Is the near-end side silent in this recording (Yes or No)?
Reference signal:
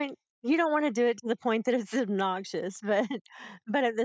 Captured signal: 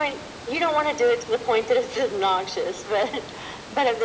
Yes